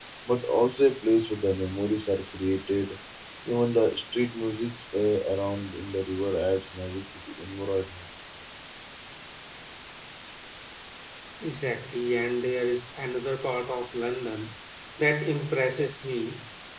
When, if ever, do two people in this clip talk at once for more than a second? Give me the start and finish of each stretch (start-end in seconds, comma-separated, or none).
none